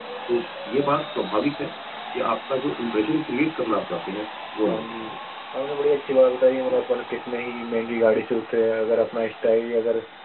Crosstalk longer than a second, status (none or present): none